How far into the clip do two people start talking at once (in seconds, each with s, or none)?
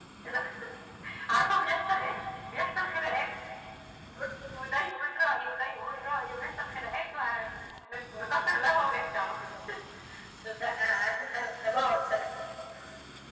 none